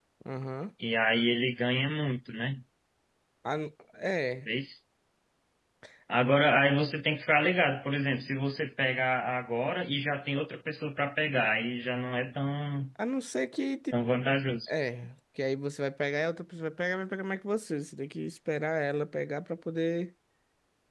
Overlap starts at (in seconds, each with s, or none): none